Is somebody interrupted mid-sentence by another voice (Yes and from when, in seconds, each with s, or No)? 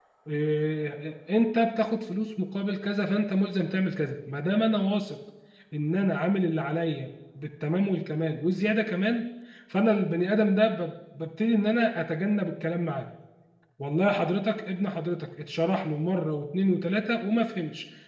No